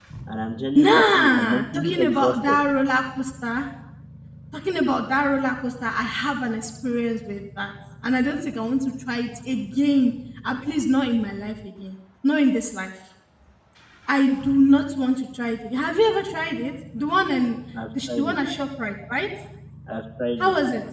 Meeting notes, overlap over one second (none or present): present